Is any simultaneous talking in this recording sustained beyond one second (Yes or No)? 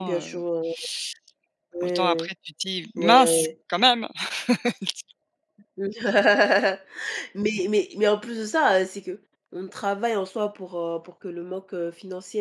No